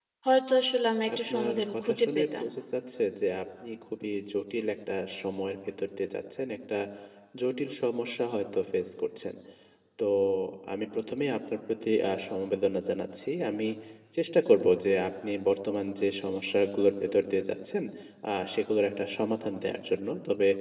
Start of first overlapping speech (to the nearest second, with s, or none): 1 s